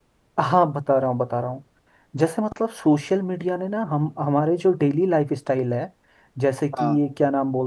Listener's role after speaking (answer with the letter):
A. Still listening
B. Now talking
A